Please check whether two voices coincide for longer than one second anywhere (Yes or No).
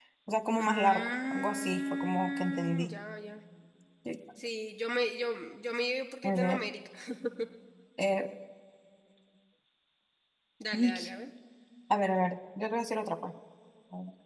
Yes